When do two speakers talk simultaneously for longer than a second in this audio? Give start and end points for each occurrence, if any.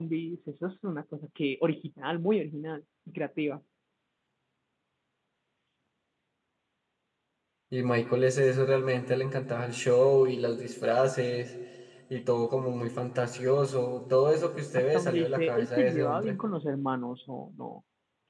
14.8-16.4

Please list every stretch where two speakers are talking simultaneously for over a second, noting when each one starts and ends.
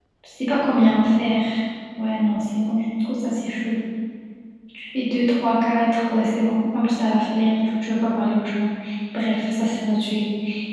none

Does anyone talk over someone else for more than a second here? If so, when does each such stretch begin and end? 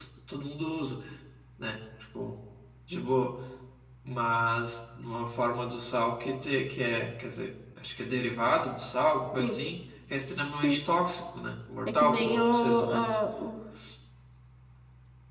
12.0-13.2

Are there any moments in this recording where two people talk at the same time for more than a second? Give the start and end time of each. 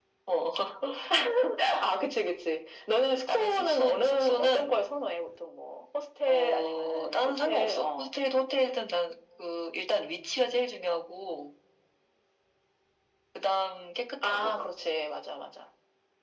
3.3-4.9, 6.3-8.1

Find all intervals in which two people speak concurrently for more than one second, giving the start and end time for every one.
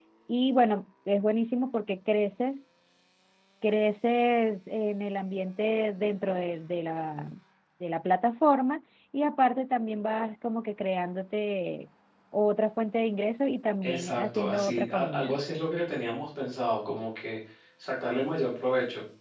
13.8-15.4

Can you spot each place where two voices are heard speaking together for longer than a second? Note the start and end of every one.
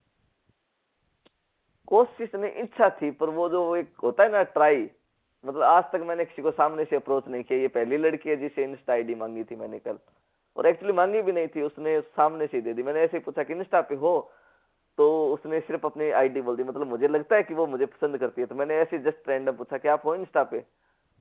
none

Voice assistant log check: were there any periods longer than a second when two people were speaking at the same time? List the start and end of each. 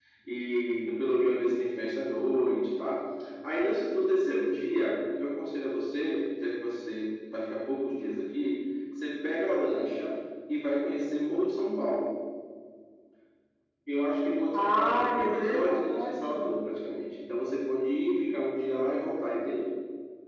14.5-16.5

